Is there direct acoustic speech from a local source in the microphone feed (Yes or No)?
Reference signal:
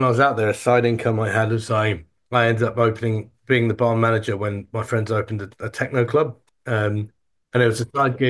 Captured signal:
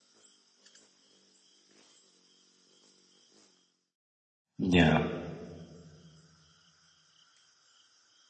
Yes